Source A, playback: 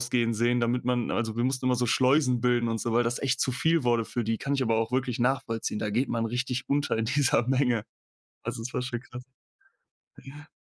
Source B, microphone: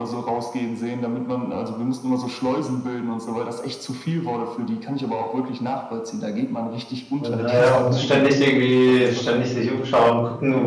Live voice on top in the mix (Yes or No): Yes